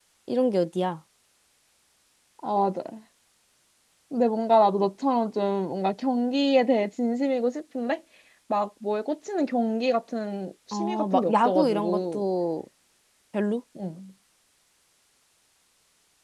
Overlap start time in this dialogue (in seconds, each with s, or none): 10.7 s